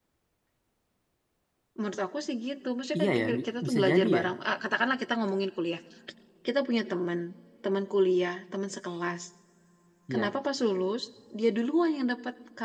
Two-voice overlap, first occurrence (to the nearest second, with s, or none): 3 s